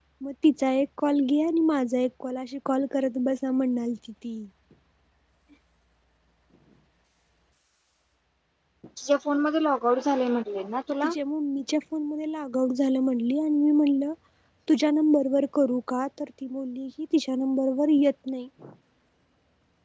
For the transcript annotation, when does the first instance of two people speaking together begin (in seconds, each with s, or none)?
none